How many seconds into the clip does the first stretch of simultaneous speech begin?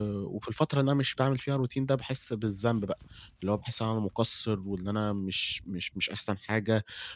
none

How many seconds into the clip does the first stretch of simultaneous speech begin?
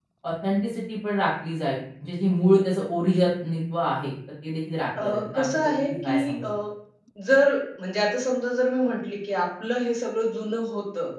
5.0 s

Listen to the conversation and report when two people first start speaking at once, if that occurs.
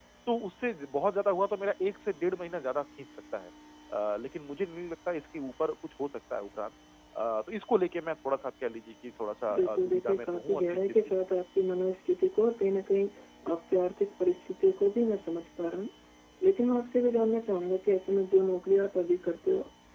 9.5 s

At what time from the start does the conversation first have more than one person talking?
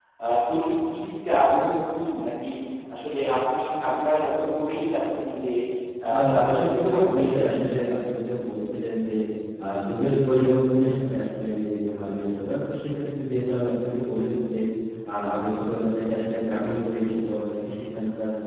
6.3 s

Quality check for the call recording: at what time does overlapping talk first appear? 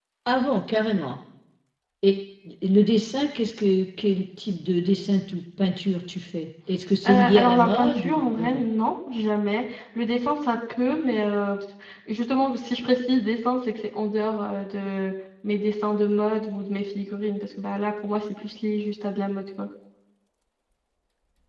7.0 s

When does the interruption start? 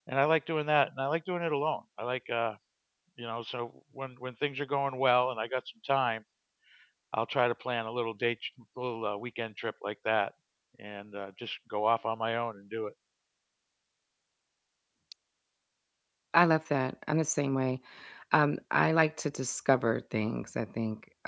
none

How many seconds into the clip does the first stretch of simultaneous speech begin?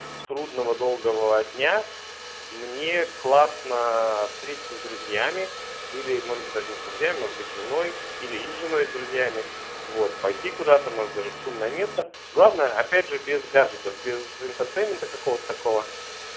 none

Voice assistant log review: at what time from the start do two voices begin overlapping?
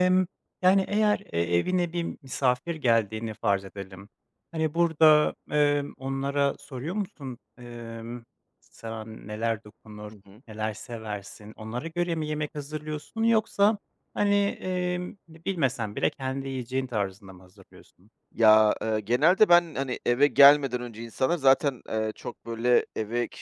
none

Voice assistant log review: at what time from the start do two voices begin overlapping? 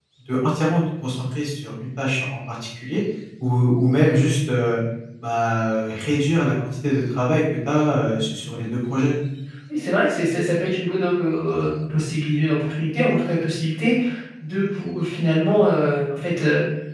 none

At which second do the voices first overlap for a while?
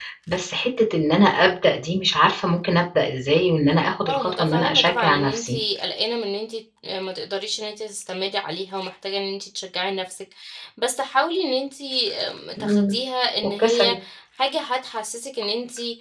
4.1 s

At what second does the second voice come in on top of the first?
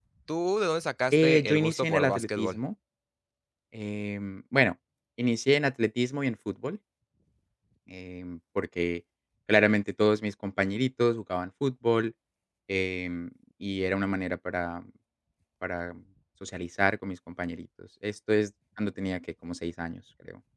1.1 s

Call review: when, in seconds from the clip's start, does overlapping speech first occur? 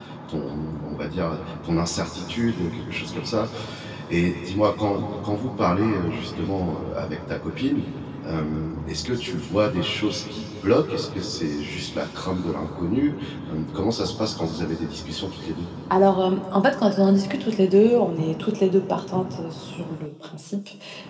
none

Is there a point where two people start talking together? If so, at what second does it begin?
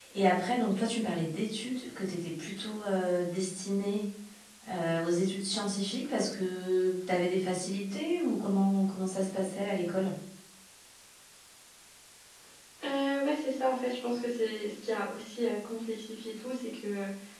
none

